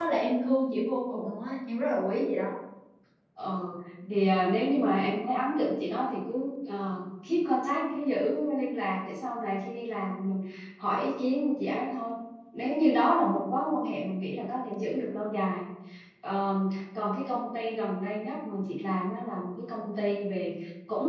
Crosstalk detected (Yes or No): No